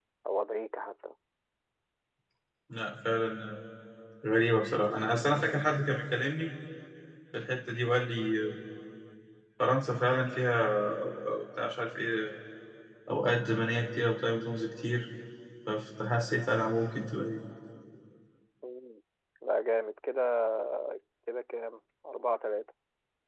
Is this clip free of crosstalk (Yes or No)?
Yes